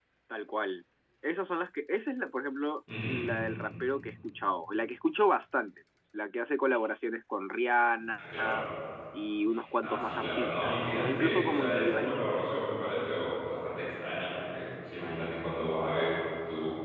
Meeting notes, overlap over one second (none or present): present